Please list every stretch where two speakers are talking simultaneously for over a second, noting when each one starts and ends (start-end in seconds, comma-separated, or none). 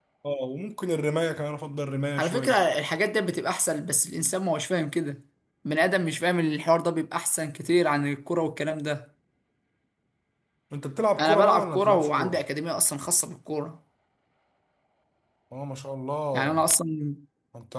11.2-12.4